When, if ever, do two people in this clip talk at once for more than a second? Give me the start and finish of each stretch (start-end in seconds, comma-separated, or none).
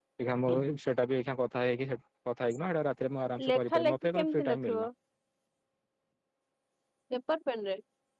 3.5-4.9